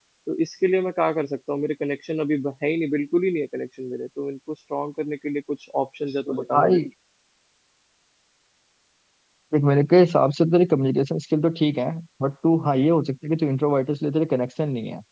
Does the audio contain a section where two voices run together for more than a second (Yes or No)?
No